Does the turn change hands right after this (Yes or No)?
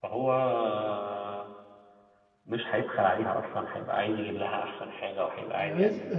Yes